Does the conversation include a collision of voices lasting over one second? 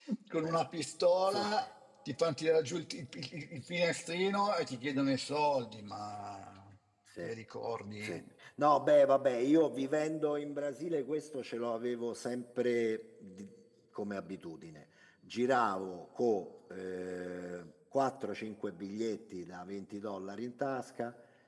No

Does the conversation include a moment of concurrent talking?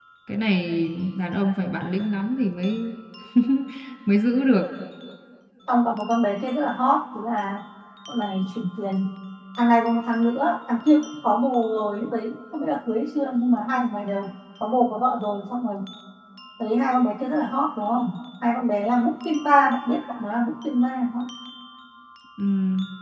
No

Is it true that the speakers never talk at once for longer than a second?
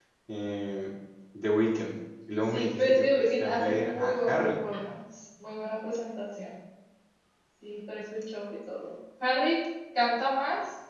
No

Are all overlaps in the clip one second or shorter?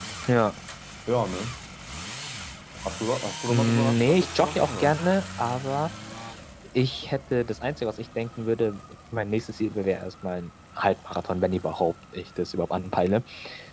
No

